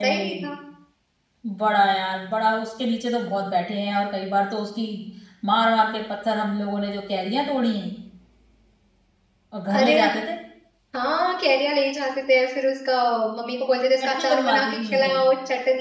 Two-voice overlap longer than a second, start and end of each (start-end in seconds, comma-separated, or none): 14.0-15.2